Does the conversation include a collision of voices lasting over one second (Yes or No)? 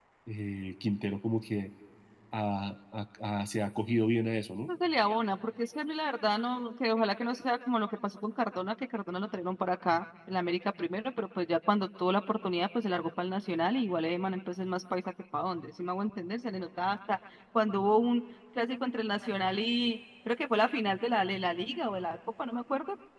No